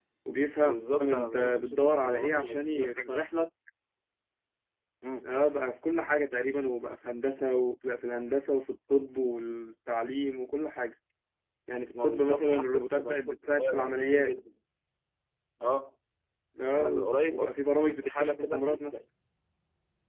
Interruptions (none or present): present